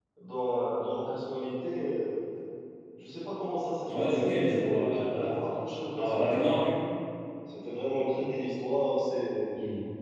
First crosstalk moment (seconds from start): 4 s

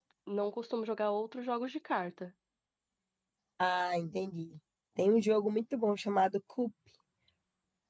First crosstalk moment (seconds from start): none

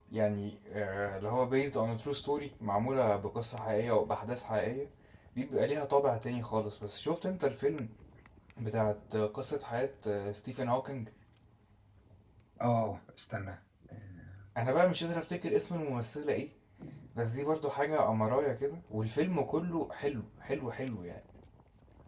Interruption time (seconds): none

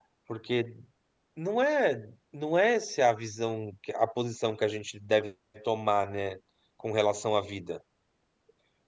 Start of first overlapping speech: none

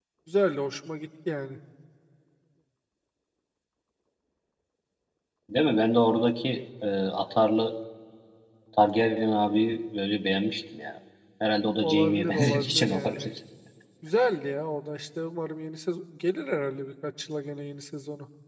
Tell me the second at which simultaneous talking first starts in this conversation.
12 s

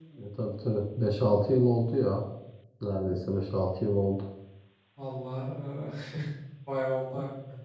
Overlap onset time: none

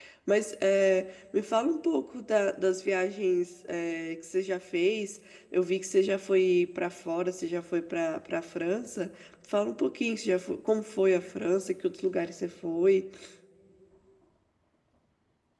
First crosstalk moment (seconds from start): none

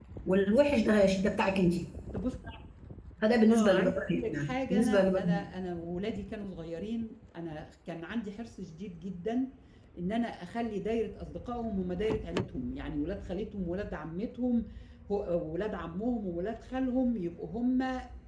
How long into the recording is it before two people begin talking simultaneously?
3 s

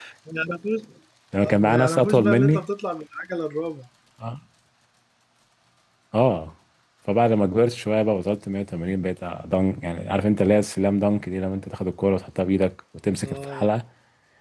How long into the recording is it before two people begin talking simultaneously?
1 s

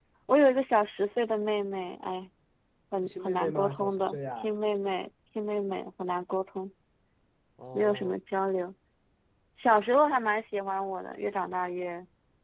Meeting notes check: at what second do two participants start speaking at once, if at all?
3 s

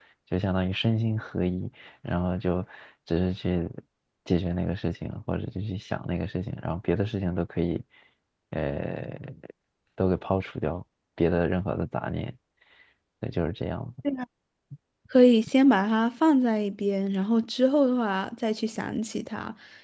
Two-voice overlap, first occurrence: none

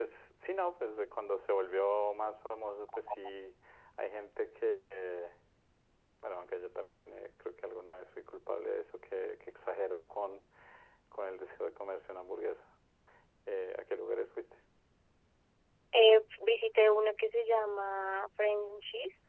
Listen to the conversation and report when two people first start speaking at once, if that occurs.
none

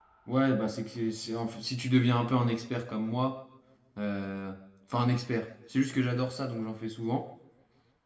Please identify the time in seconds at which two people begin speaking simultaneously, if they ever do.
none

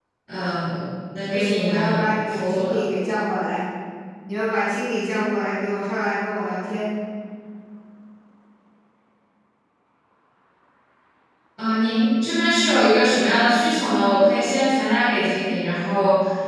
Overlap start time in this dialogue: 1 s

